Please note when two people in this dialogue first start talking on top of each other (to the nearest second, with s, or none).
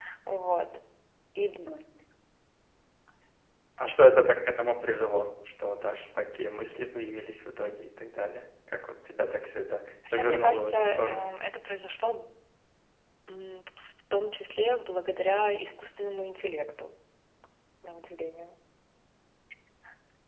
10 s